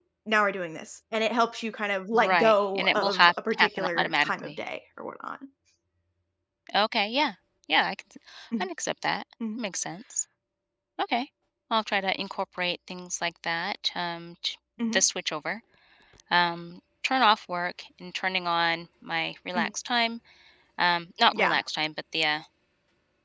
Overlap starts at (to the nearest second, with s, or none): 2 s